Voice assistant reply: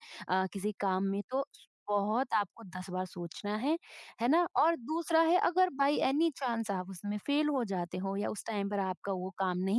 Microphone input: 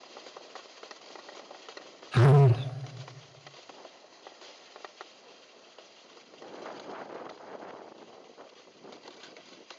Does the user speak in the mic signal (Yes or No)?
Yes